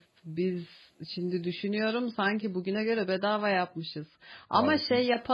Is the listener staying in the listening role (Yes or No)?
Yes